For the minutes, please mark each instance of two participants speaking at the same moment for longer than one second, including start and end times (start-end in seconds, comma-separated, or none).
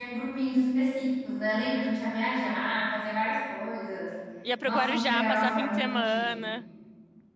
4.6-6.3